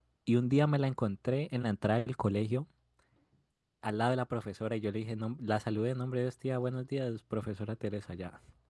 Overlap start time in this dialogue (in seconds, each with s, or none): none